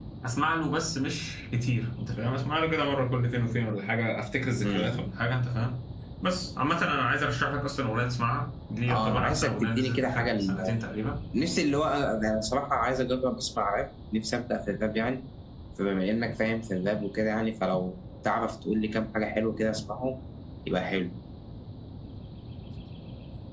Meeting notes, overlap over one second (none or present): present